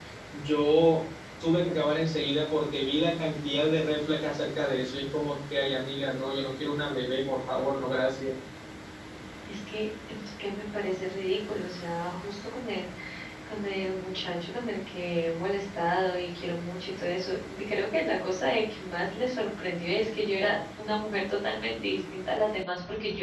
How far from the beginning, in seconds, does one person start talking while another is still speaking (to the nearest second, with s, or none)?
none